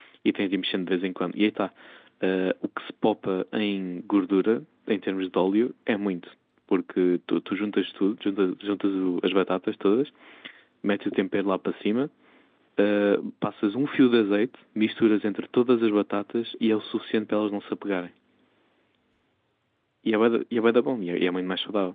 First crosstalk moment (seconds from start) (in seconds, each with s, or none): none